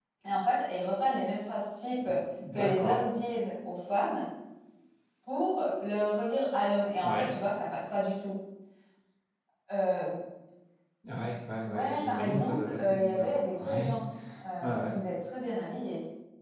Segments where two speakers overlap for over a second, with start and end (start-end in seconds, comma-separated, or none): 11.6-13.9